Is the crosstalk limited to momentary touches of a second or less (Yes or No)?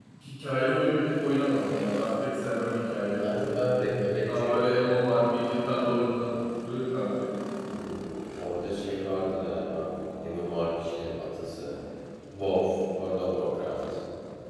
Yes